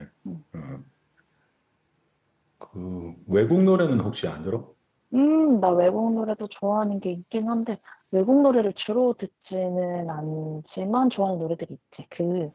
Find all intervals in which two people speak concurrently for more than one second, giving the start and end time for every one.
none

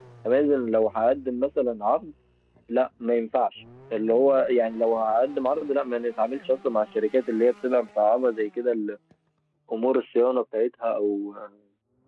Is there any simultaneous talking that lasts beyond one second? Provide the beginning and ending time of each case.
none

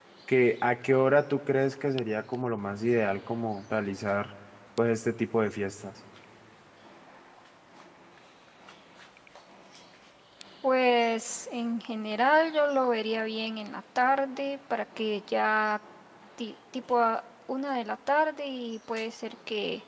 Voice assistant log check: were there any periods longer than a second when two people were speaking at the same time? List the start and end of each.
none

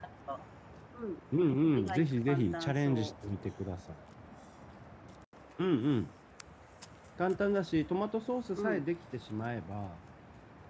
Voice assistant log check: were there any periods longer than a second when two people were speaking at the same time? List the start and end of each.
1.8-3.1

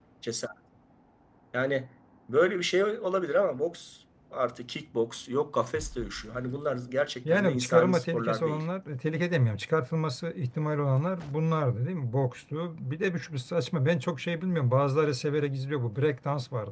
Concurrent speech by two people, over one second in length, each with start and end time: 7.2-8.6

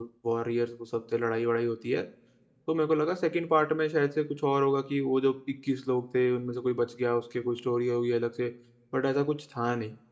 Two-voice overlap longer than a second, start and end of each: none

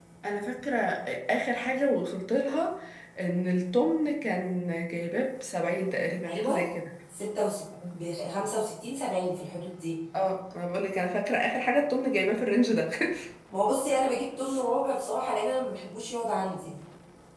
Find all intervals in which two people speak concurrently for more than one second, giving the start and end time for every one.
none

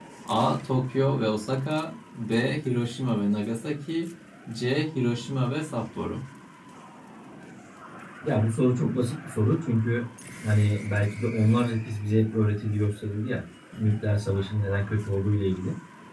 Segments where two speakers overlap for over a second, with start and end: none

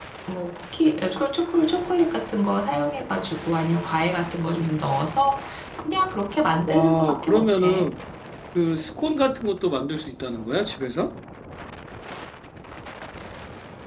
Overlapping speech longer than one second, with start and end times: 6.7-7.9

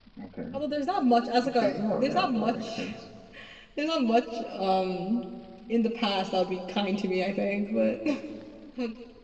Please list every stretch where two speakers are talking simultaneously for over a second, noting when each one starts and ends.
1.5-2.9

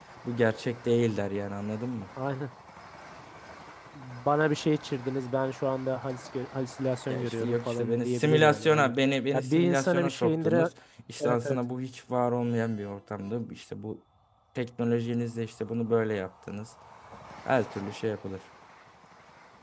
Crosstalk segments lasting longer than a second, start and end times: 7.1-8.9, 9.3-10.7

